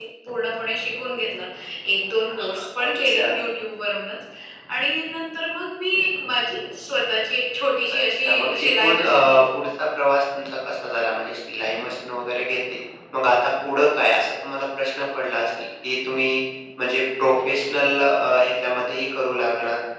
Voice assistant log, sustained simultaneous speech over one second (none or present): present